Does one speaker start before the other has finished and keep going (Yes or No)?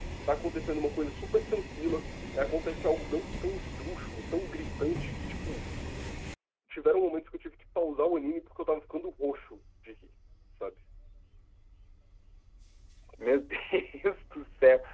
No